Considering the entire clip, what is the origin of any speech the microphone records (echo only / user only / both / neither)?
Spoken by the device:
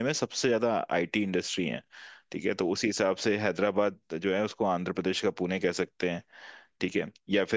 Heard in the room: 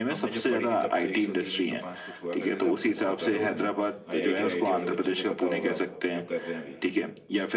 both